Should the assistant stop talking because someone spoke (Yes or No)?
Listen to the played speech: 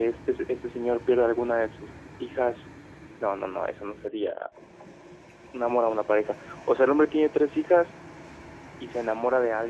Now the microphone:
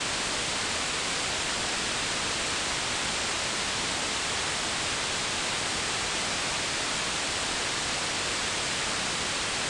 No